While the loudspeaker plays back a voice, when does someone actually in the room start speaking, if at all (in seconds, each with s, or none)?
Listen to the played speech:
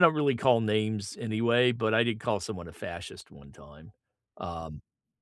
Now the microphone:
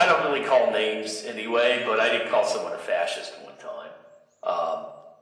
none